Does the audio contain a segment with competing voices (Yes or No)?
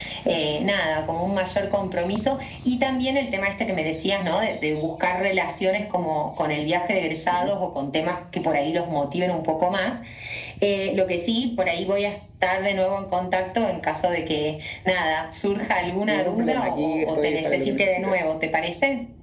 Yes